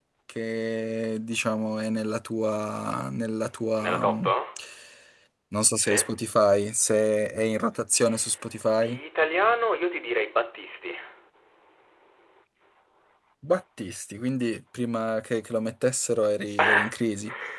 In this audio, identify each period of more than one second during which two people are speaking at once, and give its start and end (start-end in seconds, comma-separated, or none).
none